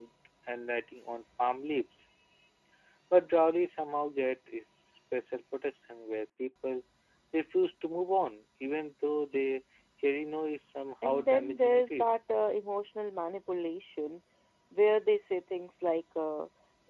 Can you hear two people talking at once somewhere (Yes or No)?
Yes